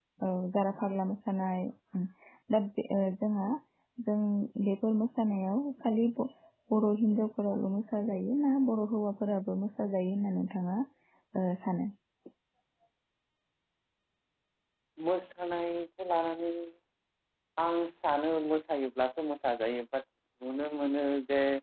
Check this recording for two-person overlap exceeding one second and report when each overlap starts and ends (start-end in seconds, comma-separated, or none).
none